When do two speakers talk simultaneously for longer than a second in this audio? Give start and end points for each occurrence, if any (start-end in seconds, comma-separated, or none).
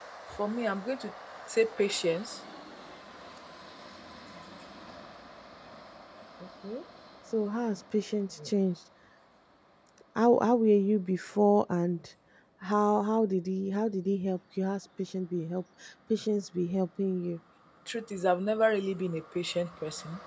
none